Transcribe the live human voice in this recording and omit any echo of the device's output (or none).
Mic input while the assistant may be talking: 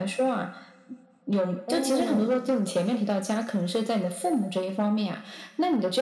嗯。